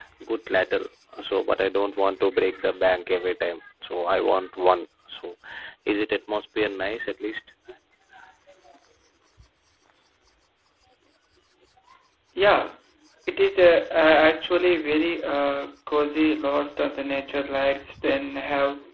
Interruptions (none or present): none